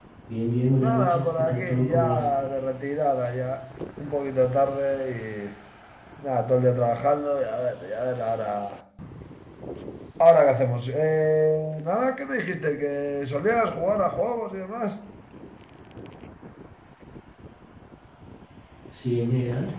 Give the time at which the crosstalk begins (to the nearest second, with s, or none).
1 s